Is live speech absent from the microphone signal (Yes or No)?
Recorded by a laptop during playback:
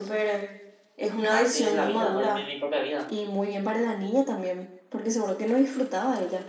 No